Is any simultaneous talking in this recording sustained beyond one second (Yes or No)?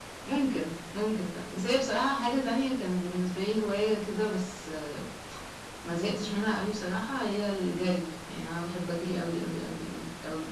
No